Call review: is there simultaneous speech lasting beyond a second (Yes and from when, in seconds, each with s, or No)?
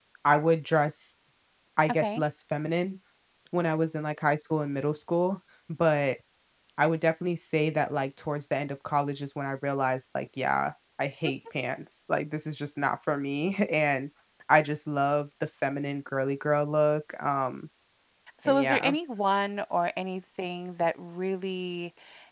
No